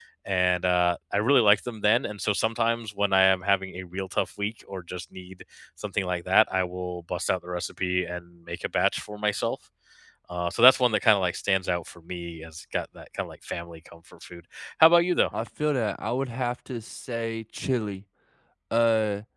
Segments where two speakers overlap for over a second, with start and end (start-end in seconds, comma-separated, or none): none